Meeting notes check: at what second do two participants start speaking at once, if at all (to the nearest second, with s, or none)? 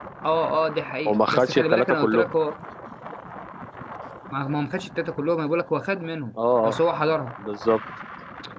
1 s